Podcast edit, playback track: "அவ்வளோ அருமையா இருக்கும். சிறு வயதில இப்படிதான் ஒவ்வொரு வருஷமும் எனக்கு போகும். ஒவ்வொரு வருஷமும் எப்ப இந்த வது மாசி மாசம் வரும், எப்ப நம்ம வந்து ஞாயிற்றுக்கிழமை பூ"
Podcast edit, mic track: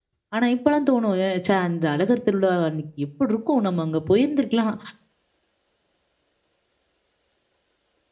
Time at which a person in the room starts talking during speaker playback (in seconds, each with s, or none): 0.3 s